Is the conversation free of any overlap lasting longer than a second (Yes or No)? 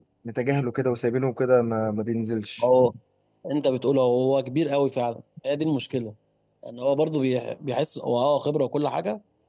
Yes